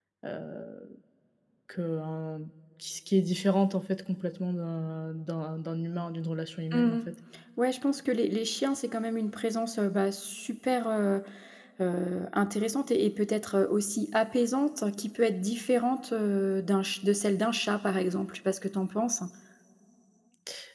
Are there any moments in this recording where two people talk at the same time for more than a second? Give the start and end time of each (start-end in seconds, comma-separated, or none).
none